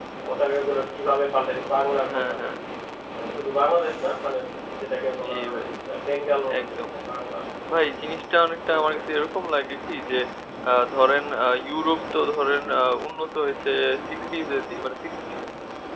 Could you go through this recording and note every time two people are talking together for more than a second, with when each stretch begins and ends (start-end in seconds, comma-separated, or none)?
none